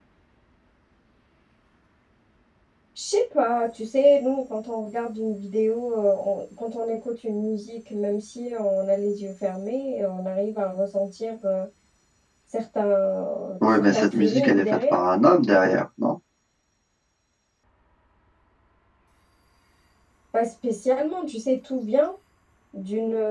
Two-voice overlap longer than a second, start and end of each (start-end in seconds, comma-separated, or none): 13.6-15.0